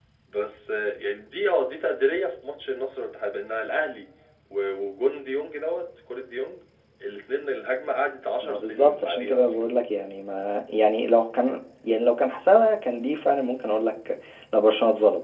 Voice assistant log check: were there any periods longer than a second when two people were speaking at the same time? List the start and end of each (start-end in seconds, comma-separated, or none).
8.4-9.7